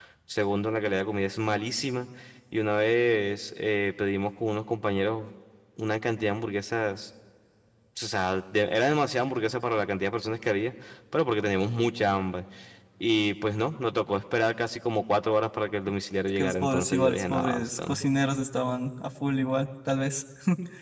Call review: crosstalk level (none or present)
present